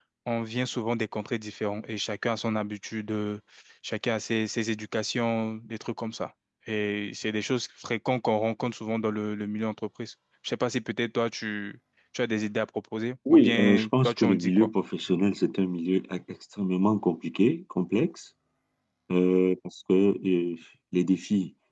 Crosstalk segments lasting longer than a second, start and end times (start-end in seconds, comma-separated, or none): 13.3-14.7